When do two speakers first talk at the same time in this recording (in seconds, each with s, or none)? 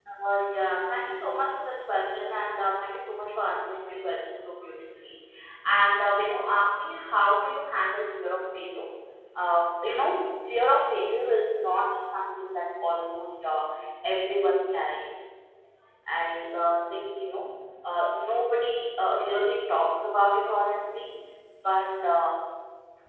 none